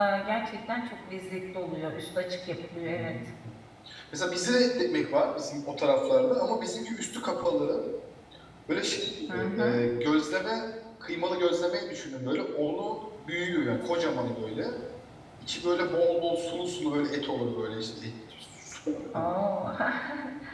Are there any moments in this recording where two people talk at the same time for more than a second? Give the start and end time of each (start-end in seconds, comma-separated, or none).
none